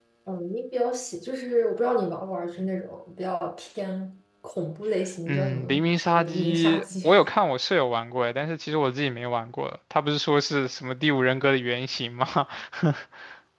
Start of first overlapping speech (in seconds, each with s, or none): 5.3 s